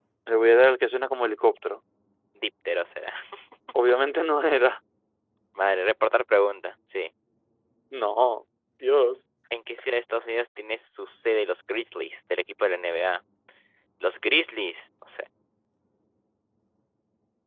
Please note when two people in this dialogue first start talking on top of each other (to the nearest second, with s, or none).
none